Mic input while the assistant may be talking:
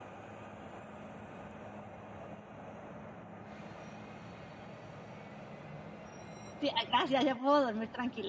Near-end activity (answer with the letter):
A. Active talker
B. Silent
A